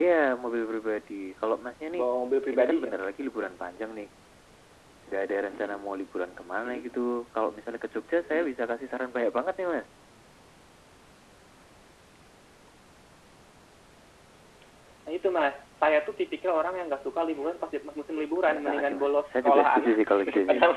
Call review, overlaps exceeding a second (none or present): present